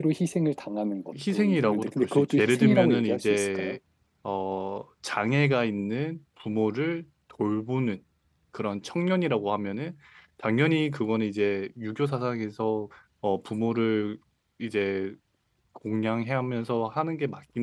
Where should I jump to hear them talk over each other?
1 s

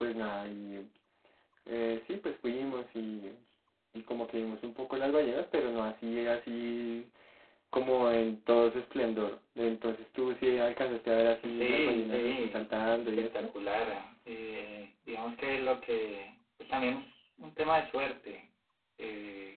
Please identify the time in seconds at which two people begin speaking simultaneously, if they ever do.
11 s

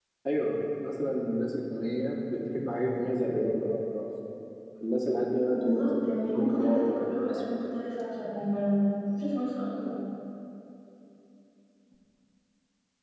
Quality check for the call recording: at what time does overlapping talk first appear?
6 s

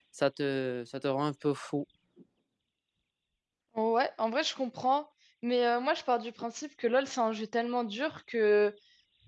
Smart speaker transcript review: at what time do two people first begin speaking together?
none

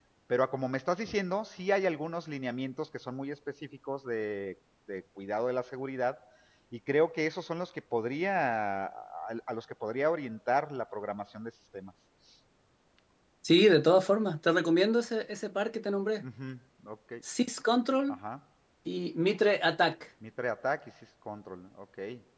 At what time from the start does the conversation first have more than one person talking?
none

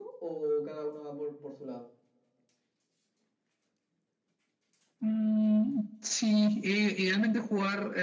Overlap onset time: none

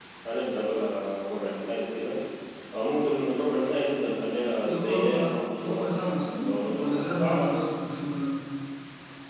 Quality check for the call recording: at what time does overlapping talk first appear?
5 s

